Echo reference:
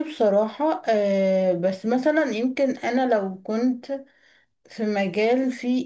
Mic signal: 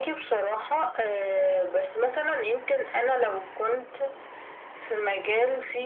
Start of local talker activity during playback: none

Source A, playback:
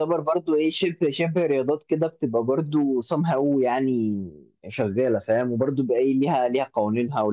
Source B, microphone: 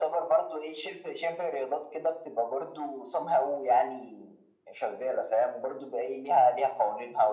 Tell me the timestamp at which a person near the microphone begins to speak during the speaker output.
none

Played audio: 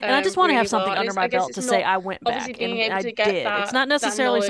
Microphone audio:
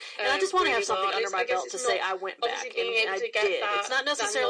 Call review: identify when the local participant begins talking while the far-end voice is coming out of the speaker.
none

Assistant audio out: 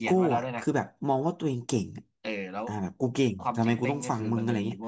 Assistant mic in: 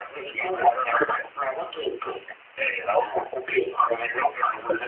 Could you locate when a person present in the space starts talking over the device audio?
none

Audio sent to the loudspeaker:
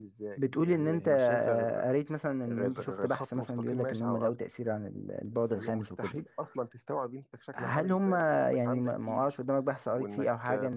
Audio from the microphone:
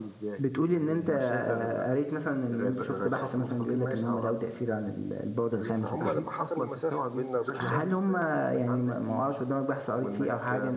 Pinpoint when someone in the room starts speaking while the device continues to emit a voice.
5.7 s

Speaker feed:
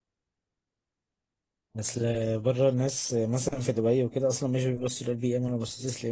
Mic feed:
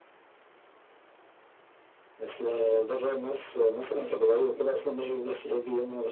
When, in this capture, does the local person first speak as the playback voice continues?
none

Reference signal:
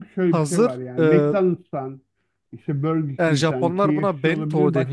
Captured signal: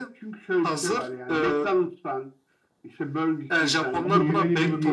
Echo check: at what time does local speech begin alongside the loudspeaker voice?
4.0 s

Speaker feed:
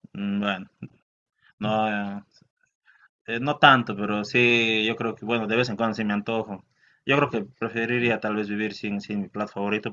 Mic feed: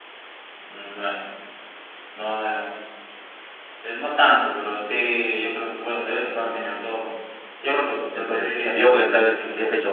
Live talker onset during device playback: 8.1 s

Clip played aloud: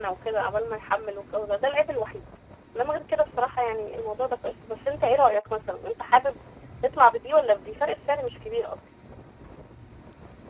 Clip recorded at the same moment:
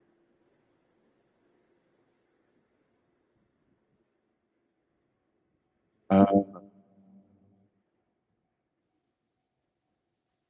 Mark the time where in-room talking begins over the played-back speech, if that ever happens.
6.1 s

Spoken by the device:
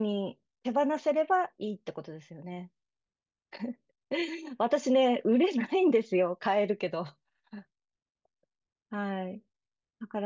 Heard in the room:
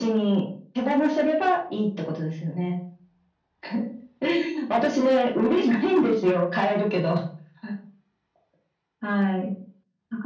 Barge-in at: none

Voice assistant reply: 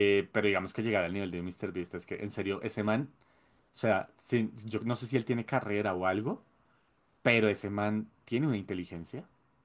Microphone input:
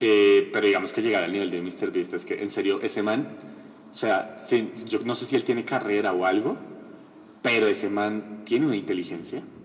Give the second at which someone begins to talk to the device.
none

